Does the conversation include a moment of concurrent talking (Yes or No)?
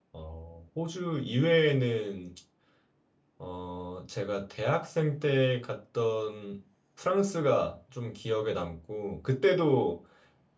No